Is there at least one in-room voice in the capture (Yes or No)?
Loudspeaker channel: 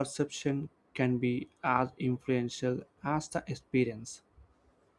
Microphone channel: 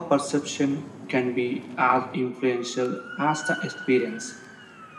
No